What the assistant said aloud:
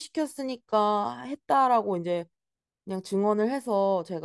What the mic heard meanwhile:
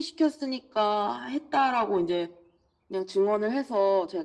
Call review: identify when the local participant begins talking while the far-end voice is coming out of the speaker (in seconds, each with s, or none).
none